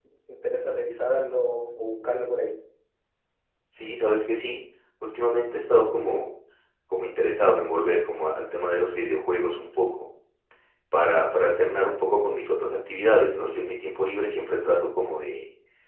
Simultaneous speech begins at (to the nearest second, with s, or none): none